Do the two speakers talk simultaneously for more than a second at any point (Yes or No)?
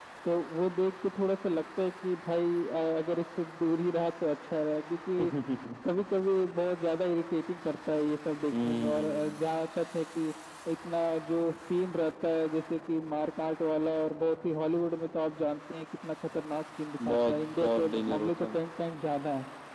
Yes